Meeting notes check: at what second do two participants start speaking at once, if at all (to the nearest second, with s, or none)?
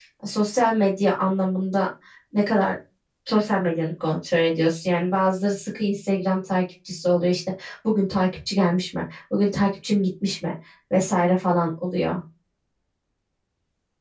none